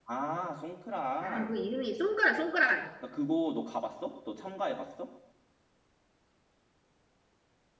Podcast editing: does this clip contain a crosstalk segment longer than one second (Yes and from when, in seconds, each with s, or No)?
No